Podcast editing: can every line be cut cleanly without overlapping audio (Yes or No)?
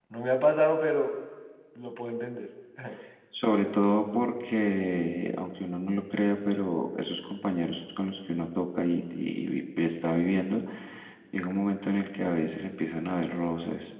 Yes